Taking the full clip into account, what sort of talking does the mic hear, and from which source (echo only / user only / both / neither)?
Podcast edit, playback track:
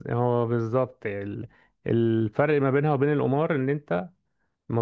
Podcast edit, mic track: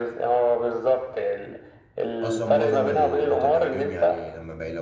both